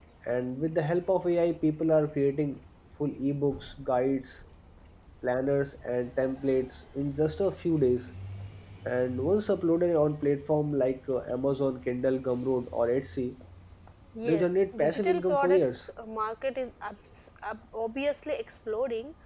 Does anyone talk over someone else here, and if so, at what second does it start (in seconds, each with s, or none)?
14.2 s